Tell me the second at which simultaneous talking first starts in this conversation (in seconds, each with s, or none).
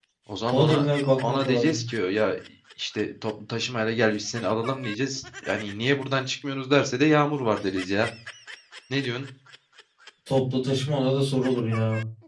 0.5 s